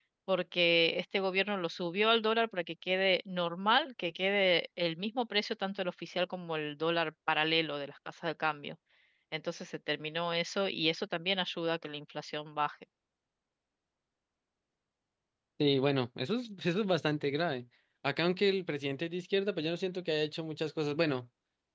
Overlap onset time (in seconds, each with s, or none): none